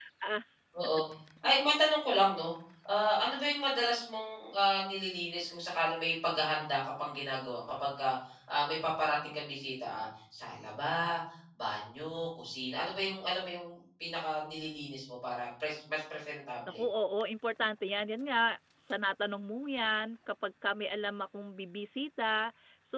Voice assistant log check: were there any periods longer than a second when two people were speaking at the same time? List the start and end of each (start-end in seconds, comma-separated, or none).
none